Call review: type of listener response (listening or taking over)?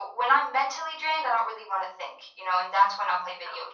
listening